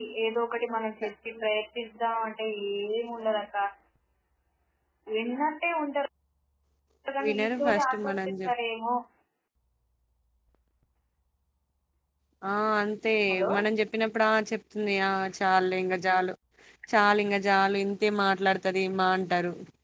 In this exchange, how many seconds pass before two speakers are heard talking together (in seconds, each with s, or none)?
7.2 s